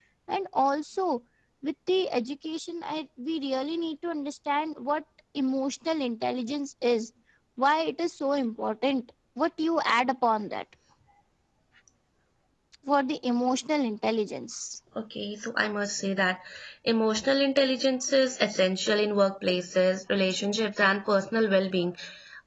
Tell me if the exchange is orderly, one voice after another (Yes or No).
Yes